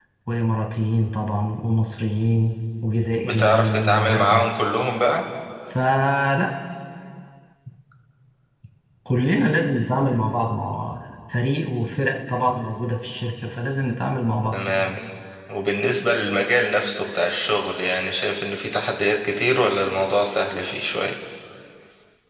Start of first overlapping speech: 3 s

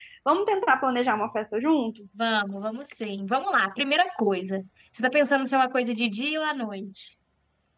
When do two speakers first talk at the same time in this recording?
none

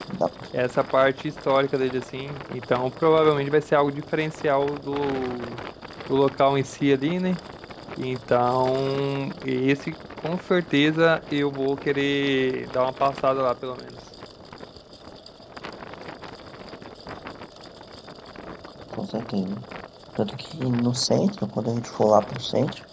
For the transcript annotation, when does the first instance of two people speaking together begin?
none

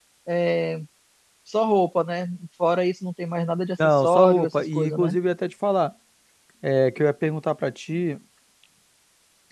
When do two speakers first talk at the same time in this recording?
4 s

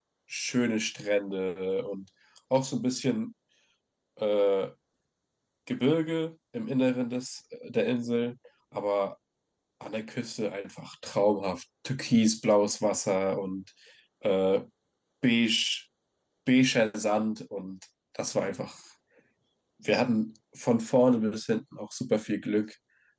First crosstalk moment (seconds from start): none

